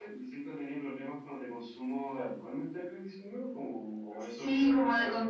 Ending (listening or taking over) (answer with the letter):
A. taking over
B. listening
A